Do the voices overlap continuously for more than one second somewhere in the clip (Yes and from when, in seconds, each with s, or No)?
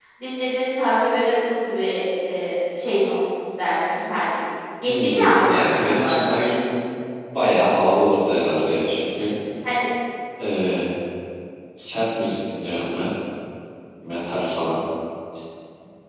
Yes, from 4.9 s